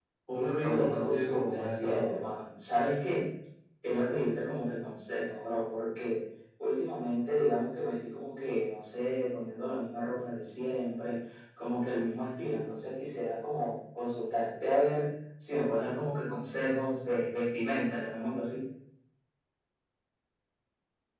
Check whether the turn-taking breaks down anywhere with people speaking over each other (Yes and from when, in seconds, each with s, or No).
Yes, from 0.6 s